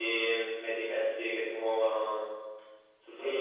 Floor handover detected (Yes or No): Yes